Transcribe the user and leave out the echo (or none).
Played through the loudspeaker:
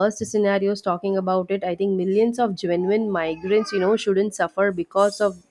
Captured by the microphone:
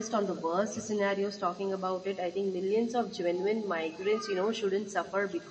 none